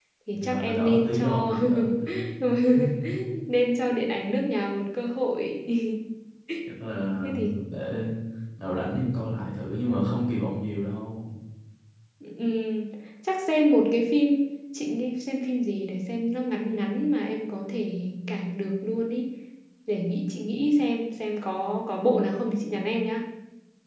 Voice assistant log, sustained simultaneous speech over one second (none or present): present